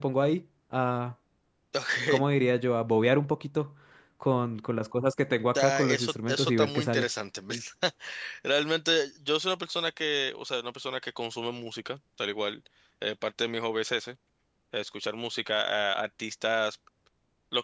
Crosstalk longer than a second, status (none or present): present